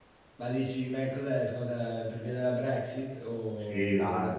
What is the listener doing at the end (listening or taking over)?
taking over